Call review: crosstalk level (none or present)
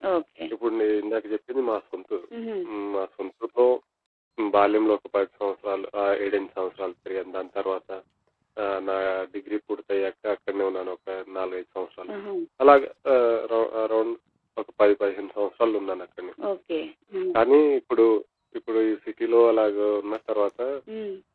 none